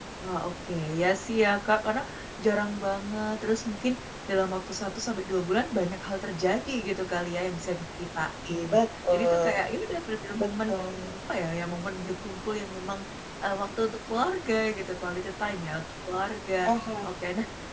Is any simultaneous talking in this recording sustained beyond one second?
No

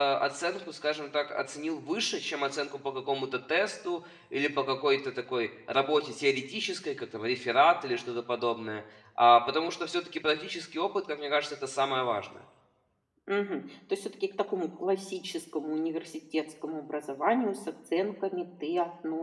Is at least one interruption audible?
No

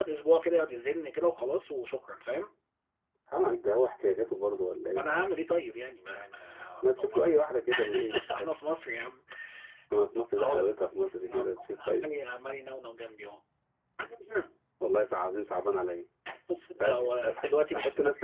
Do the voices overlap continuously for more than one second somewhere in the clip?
Yes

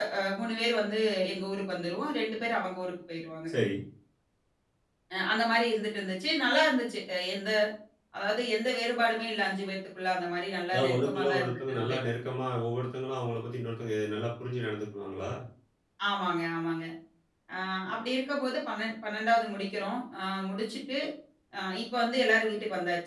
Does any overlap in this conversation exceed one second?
Yes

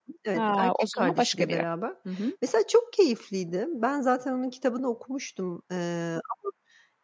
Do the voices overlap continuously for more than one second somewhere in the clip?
Yes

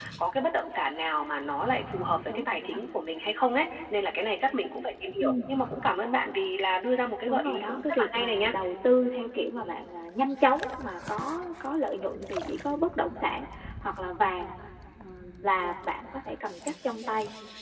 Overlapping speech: Yes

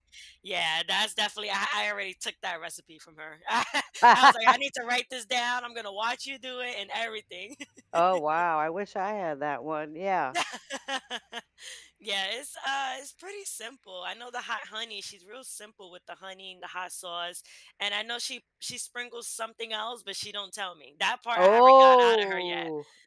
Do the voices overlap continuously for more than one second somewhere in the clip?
Yes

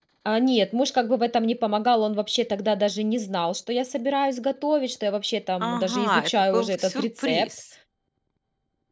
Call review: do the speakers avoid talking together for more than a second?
No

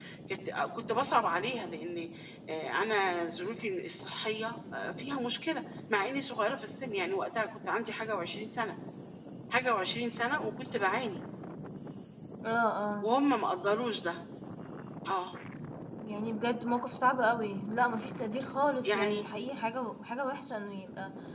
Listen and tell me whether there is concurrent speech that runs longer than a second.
No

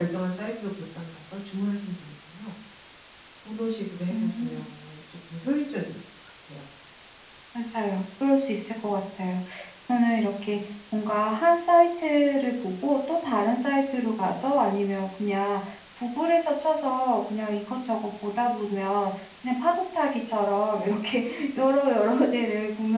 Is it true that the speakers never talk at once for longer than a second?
Yes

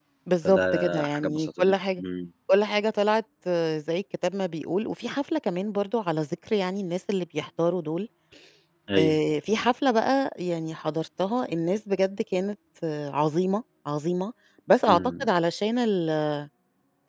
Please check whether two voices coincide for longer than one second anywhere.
Yes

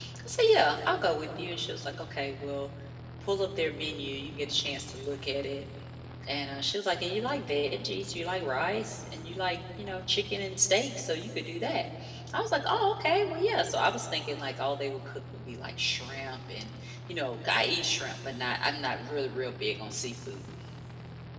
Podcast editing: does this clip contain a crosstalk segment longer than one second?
No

